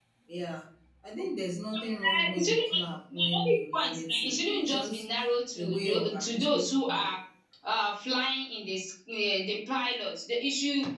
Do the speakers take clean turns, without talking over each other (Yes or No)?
No